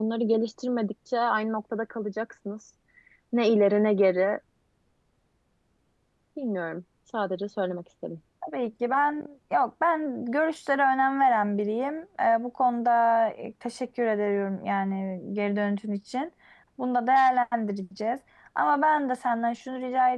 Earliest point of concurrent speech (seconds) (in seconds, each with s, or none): none